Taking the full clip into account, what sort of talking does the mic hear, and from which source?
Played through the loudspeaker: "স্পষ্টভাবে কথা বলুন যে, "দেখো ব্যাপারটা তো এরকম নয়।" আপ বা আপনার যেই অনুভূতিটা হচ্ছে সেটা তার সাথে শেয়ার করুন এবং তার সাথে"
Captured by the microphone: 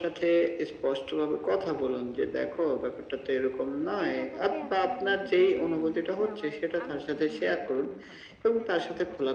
both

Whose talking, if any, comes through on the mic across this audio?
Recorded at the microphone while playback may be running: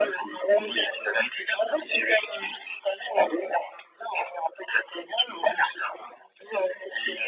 echo only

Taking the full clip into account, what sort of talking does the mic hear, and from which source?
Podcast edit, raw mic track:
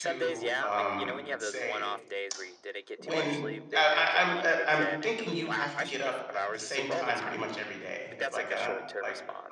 both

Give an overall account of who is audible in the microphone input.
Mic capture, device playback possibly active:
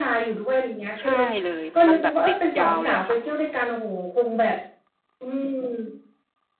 both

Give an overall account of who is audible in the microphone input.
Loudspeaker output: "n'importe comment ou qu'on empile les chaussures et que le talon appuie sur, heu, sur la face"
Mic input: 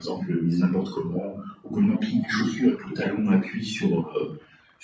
echo only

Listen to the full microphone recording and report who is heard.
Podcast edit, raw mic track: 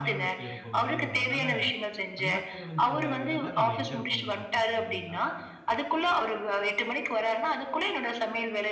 both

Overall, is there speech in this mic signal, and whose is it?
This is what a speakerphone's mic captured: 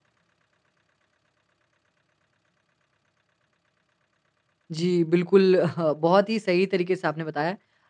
user only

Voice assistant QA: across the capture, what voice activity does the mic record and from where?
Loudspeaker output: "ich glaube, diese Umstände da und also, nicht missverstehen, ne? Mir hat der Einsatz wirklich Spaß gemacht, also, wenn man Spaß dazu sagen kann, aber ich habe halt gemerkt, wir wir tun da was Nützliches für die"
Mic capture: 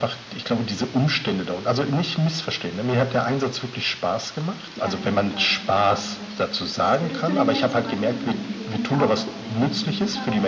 both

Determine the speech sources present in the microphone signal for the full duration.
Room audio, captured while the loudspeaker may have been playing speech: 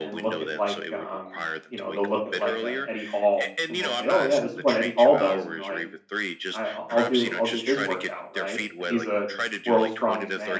both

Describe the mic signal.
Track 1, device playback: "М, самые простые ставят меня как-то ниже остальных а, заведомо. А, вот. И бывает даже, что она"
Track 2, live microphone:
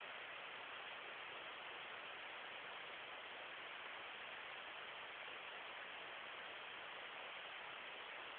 neither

